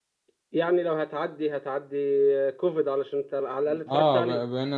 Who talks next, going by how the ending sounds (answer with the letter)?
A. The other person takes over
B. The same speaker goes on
A